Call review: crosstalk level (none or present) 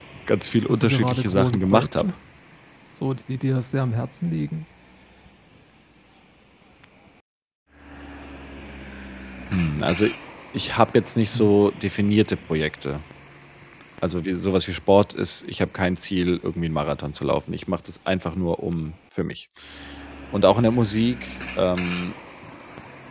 present